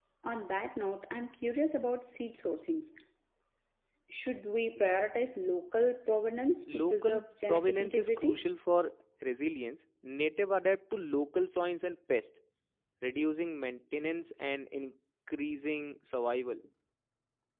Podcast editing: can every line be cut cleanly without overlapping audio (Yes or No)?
No